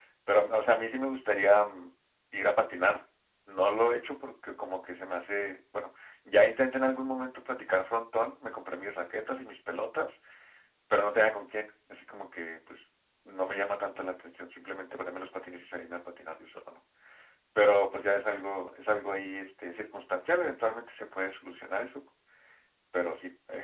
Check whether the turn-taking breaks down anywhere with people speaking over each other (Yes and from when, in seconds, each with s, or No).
No